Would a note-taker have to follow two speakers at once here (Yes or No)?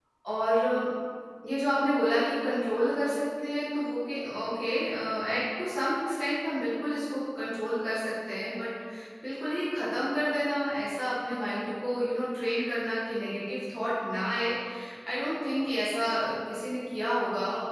No